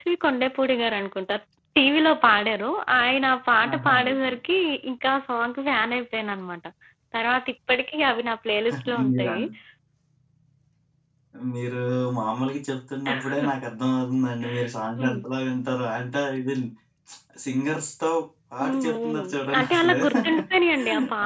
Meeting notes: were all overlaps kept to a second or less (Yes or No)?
No